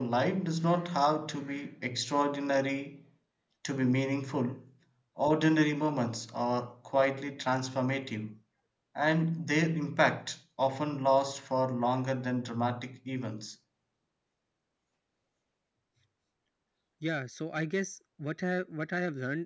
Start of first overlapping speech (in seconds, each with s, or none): none